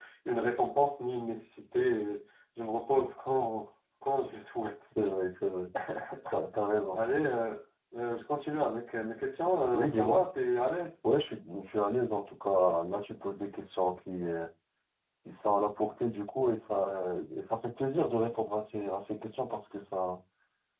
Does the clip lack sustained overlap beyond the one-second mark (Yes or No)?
Yes